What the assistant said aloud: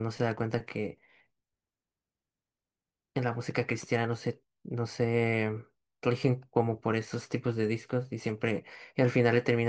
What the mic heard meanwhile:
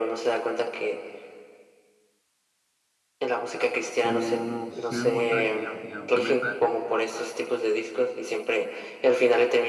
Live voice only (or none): Como si se dieron cuenta de que ya no tenían otra meta.